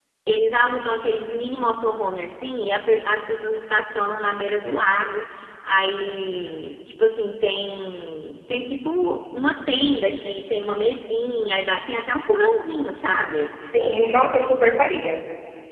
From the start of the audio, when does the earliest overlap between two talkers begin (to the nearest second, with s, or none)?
none